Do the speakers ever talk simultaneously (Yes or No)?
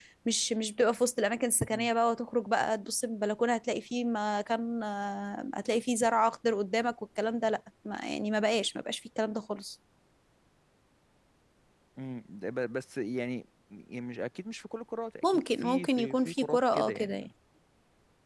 Yes